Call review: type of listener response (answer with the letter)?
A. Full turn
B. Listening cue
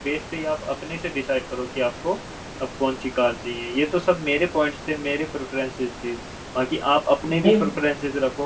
B